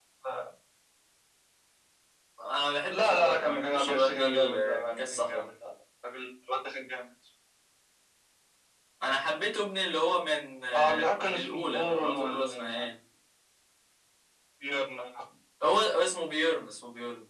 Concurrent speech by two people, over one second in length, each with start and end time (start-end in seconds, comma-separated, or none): 2.9-5.5, 10.7-12.9